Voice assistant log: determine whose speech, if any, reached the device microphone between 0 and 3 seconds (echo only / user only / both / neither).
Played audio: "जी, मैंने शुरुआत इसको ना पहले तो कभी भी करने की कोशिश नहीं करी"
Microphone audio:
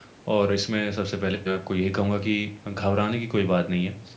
user only